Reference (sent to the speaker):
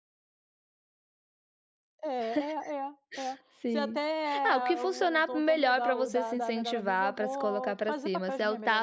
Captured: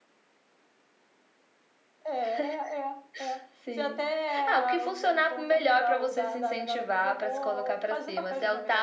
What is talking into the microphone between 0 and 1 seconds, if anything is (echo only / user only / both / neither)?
neither